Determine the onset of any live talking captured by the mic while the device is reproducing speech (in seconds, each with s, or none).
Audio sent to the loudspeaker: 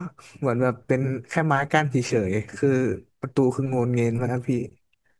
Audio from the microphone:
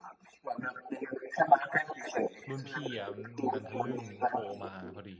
2.5 s